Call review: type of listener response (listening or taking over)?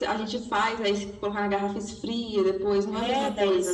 taking over